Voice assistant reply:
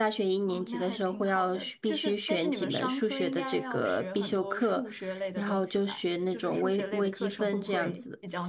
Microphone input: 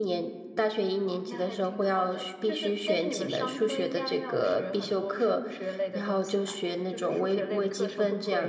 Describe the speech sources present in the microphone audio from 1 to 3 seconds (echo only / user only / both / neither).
echo only